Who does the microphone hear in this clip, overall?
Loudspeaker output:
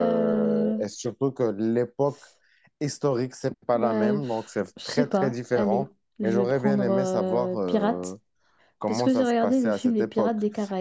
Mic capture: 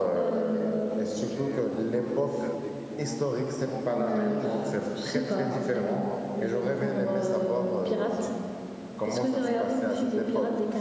both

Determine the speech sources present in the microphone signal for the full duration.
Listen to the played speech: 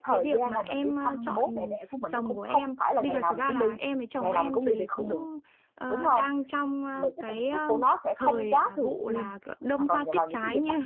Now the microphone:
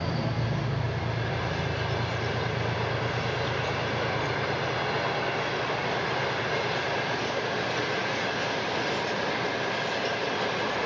neither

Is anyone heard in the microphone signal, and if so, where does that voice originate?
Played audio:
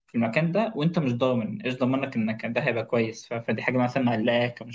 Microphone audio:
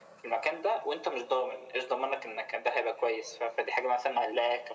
echo only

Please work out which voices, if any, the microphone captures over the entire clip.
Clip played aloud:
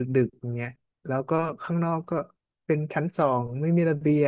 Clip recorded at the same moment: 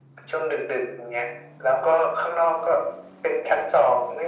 echo only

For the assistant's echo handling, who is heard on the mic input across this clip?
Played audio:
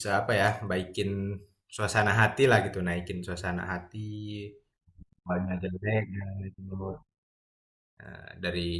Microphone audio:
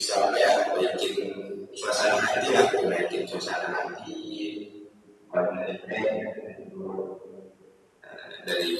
echo only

